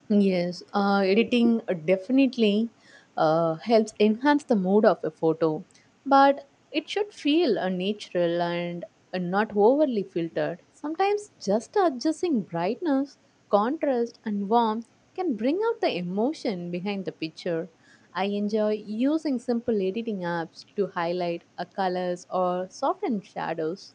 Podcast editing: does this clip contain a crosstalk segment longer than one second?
No

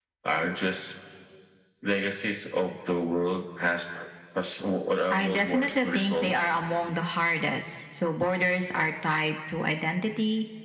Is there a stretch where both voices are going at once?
Yes, from 5.1 s

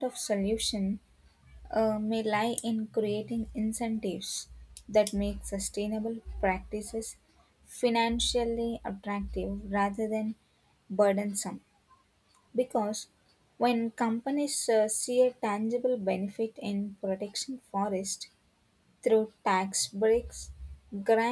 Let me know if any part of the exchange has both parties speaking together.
No

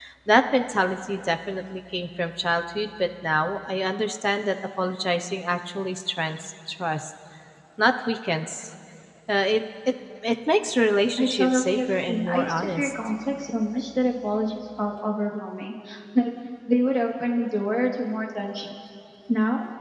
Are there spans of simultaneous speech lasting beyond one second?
Yes, from 11.2 s

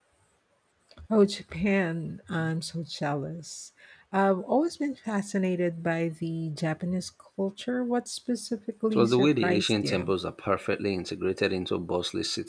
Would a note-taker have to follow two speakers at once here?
Yes, from 8.9 s

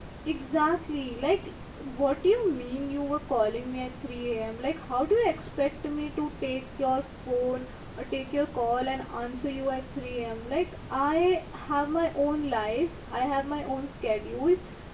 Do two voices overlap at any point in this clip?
No

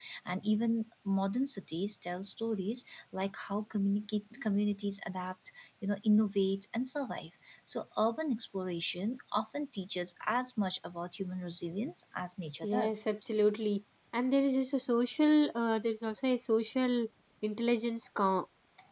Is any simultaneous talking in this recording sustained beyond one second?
No

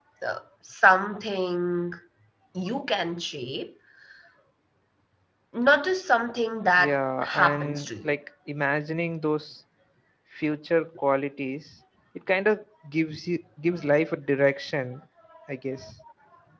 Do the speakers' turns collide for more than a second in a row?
Yes, from 6.8 s

